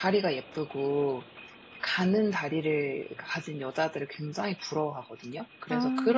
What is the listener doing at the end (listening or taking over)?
listening